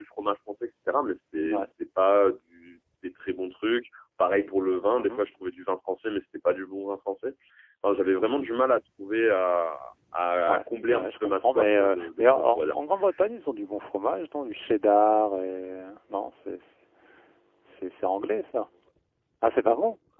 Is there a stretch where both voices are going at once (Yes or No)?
Yes